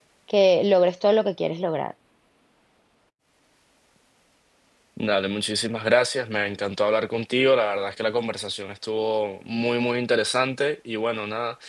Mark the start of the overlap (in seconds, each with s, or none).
none